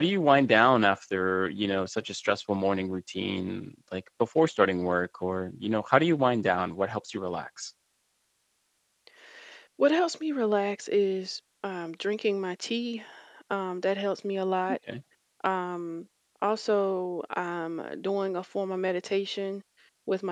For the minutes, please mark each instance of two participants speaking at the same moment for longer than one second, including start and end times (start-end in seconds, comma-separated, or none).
none